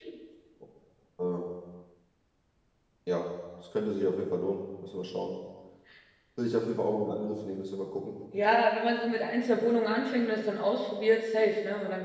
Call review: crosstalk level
none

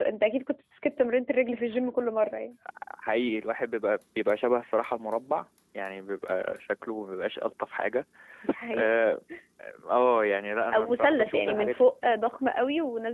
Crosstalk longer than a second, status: present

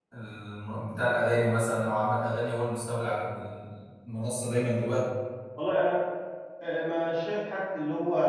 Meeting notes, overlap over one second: none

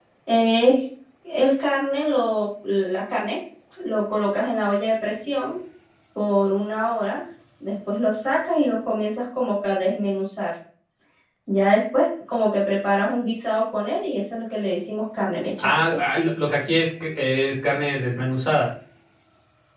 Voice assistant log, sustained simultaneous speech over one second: none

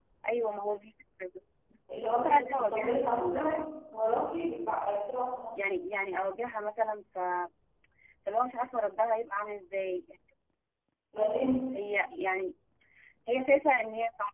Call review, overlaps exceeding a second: present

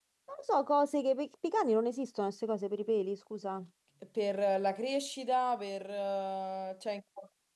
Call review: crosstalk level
none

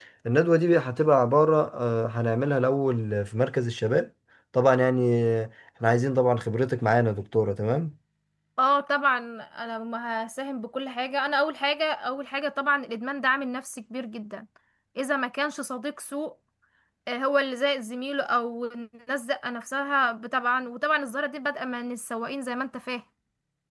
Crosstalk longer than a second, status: none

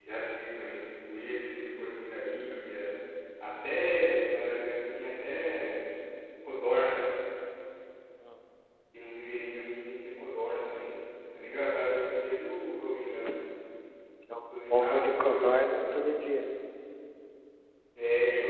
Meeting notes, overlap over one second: present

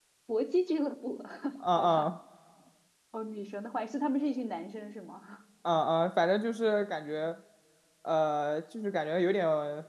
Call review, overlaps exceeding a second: none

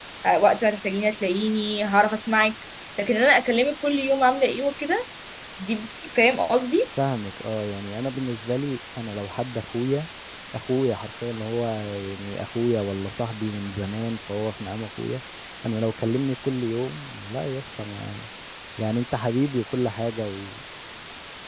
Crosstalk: none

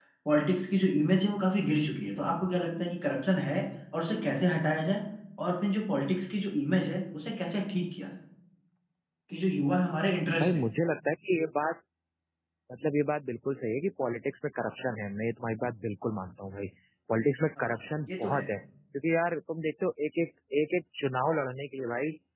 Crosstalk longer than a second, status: none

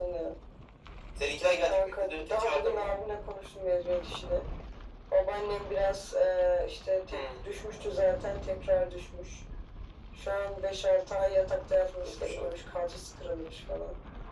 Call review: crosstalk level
present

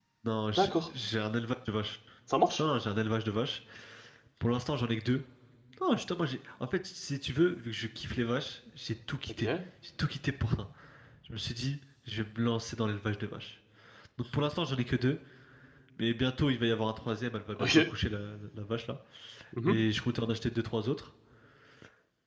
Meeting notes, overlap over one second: none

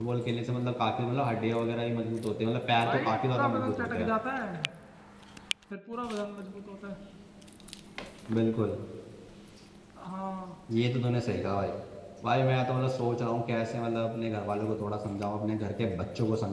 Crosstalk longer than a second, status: present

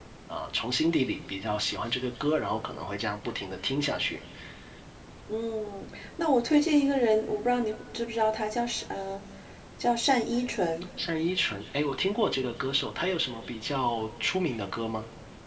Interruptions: none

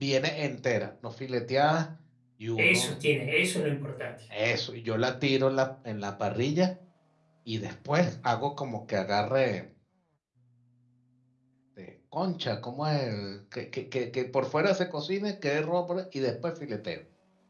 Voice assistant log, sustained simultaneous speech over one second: none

